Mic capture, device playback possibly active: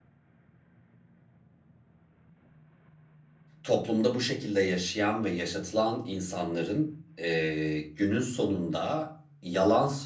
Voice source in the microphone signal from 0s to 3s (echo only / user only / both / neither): neither